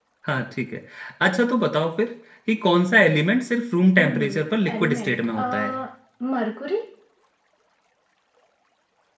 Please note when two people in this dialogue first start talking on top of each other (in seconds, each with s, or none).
4.0 s